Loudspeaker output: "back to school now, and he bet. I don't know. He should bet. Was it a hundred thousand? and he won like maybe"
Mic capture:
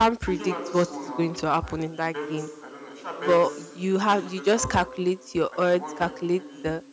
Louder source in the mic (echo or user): user